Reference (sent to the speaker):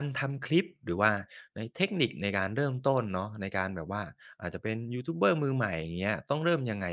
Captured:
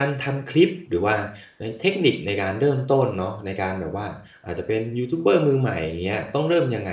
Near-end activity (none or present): none